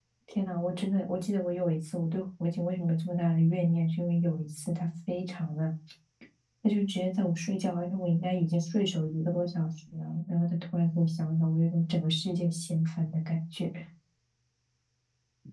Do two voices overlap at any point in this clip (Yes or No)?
No